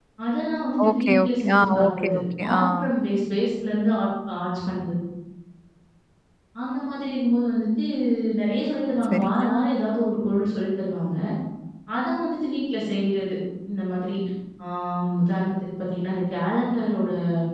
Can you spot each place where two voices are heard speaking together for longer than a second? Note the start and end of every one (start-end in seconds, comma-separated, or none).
0.9-2.2